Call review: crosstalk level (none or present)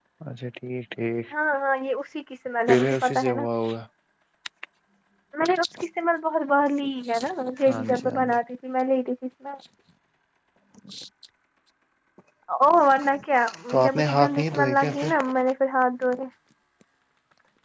present